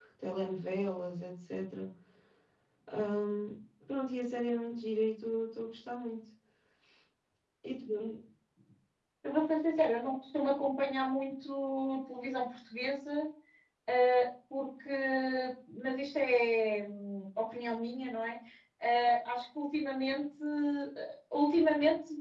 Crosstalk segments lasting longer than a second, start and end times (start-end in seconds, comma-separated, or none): none